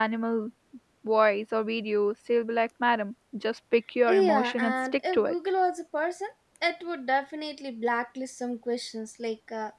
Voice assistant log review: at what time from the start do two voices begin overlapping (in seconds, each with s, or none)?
4.1 s